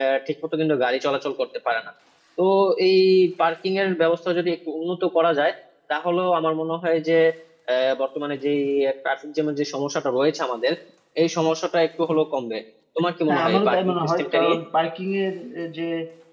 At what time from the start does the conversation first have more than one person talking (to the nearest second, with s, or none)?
13 s